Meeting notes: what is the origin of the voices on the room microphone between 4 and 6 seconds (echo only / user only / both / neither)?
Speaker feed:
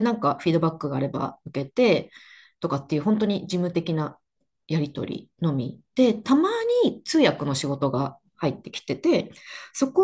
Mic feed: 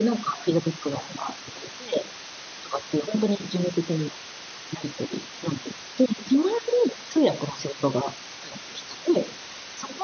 echo only